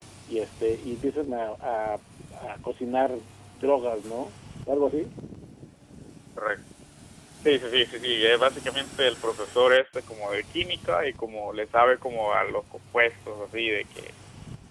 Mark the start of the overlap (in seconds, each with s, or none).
none